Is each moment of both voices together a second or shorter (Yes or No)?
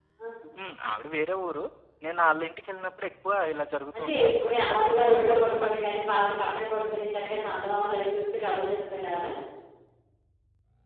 No